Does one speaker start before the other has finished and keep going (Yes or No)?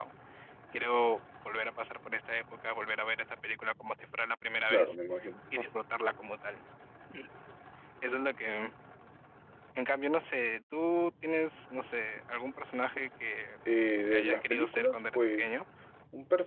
Yes